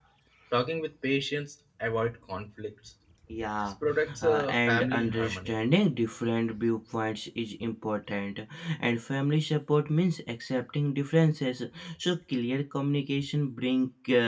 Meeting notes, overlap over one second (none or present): present